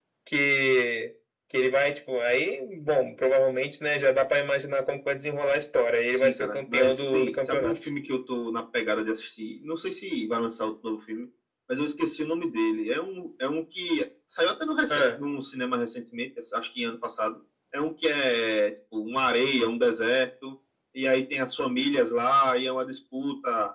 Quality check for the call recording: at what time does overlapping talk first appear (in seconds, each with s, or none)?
6.1 s